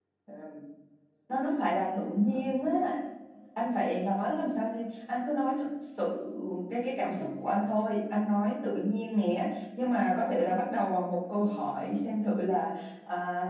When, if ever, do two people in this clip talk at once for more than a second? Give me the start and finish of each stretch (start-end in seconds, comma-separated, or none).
none